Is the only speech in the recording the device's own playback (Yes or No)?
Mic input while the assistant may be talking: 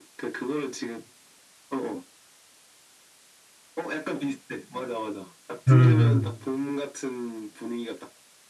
No